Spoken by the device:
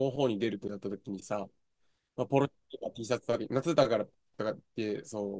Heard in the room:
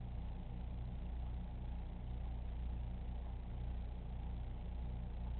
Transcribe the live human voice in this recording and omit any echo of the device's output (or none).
none